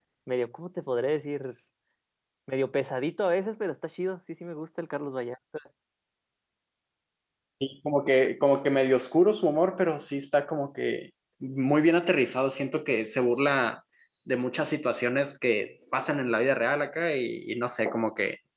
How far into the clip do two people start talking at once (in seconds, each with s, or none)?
none